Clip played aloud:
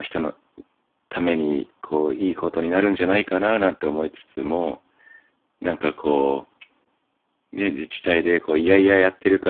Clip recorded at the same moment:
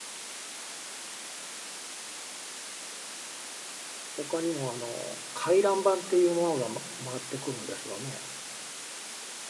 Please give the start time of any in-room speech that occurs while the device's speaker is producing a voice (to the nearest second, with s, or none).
4 s